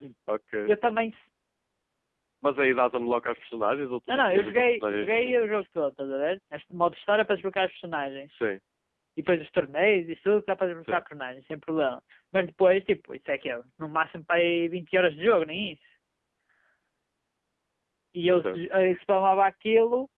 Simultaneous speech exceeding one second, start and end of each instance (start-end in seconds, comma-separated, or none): 4.1-5.6